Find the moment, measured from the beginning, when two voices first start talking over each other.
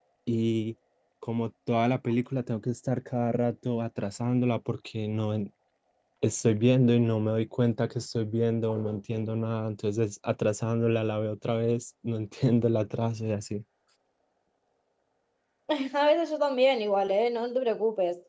none

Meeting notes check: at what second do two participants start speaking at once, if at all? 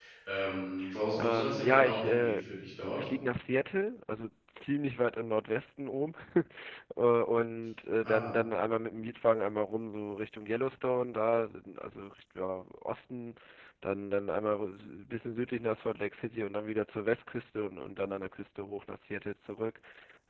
1.2 s

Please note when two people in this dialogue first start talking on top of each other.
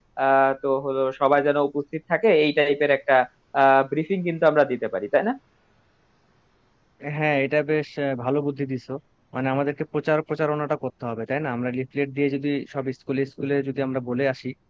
none

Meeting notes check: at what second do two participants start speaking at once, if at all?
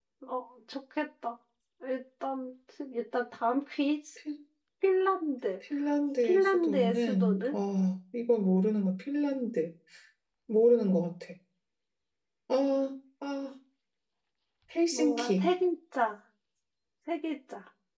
6.2 s

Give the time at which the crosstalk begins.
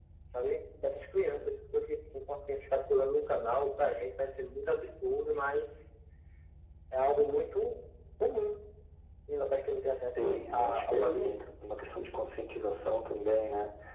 10.1 s

